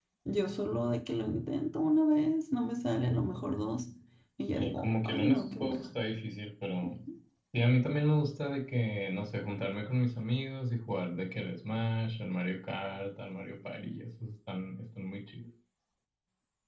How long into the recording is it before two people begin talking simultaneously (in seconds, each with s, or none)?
4.5 s